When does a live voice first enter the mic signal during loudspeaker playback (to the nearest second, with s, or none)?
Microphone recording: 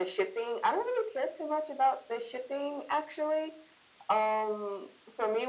none